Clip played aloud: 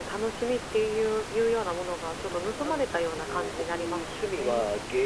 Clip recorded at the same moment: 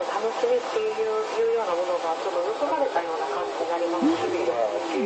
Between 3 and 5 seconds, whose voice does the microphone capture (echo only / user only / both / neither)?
both